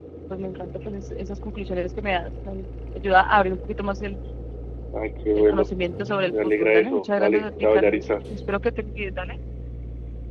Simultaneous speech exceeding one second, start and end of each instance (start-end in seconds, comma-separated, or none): 6.2-8.0